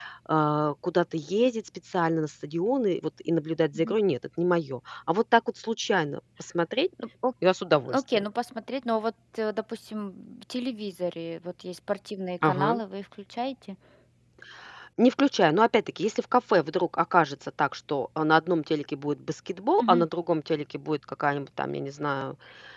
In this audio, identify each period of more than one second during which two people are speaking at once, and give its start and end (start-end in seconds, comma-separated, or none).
none